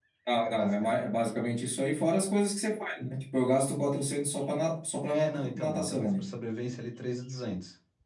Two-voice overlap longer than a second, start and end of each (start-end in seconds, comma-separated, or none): 5.0-6.3